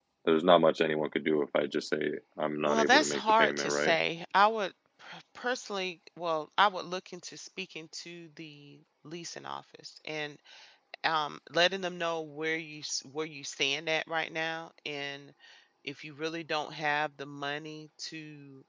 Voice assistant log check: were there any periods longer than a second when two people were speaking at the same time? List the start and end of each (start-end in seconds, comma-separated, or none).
2.7-4.0